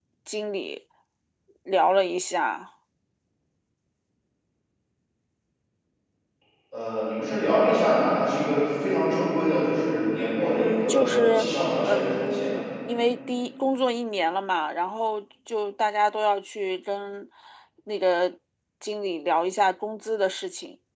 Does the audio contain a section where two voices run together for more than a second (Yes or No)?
Yes